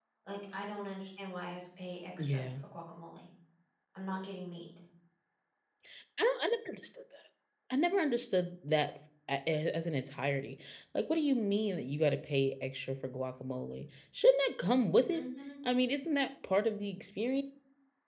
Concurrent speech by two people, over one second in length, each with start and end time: none

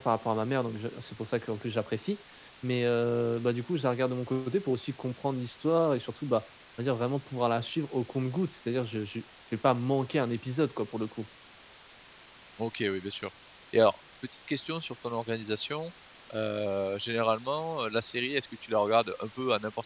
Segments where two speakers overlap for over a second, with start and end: none

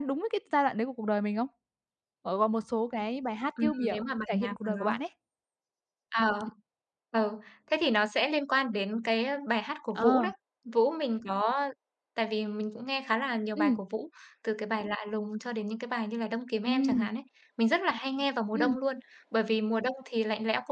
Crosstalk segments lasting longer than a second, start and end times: 3.6-4.9

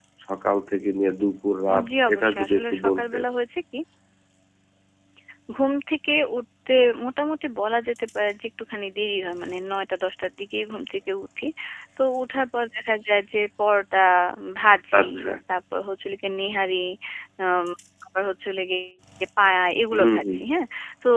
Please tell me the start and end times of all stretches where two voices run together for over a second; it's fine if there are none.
1.9-3.2

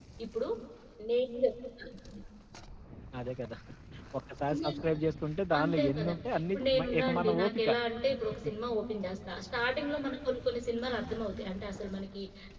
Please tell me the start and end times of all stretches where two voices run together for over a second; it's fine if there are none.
5.6-7.7

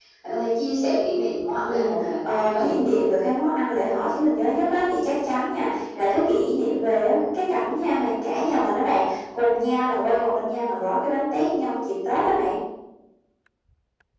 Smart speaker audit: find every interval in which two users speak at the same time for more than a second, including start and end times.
1.7-3.0

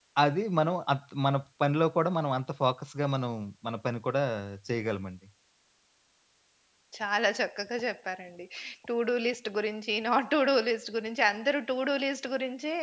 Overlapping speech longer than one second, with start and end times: none

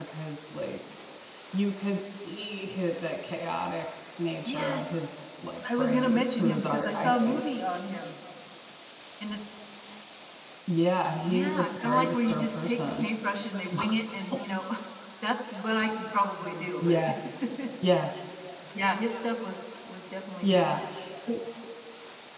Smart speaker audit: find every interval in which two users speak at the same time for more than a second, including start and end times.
5.8-7.5, 11.3-13.1

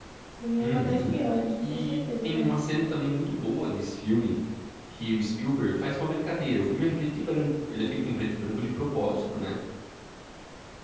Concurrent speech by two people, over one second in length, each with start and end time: 1.5-2.9

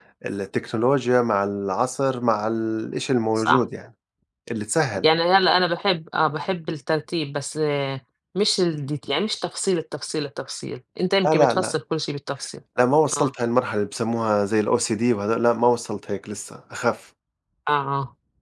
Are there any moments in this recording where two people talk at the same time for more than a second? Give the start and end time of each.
none

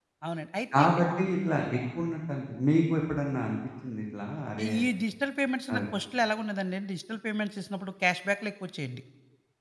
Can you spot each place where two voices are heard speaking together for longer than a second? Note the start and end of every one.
none

